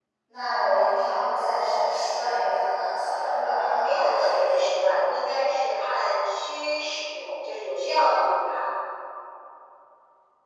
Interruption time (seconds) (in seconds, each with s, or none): 3.6 s